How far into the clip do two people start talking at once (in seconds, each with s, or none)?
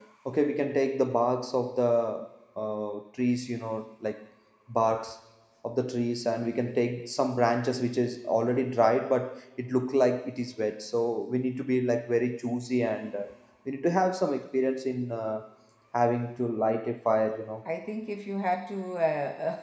none